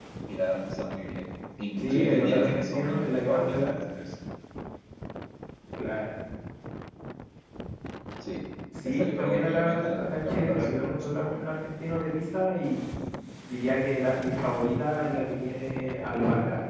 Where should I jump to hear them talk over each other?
1.8 s

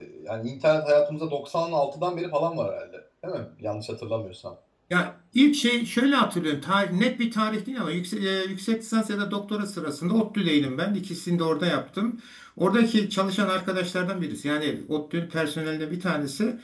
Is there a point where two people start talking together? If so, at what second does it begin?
none

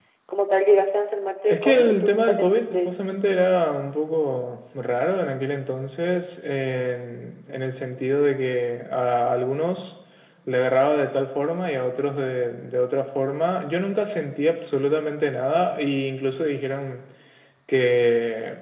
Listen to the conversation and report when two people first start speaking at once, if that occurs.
1.4 s

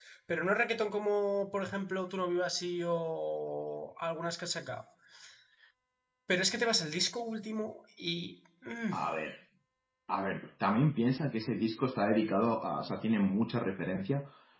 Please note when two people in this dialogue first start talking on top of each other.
none

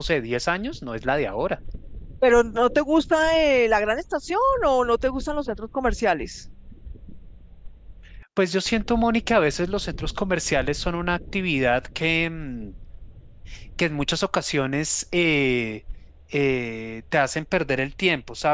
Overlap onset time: none

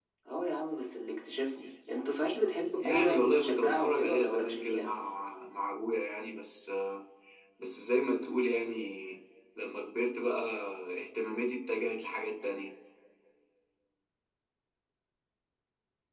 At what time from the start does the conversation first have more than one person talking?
2.8 s

